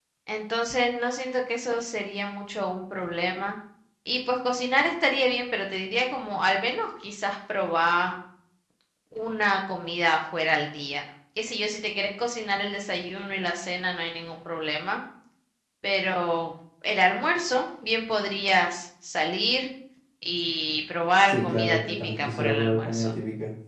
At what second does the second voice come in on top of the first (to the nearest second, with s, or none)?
21 s